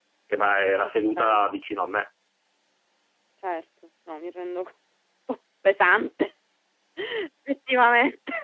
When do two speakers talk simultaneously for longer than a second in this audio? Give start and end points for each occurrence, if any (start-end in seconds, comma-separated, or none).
none